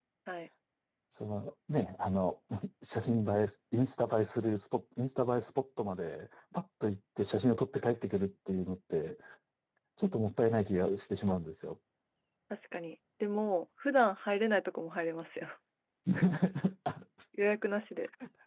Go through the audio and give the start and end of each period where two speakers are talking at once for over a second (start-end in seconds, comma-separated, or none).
none